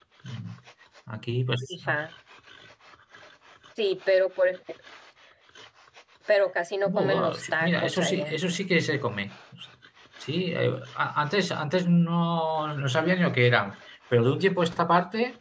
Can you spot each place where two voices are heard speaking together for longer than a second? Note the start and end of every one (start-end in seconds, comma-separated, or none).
6.8-8.3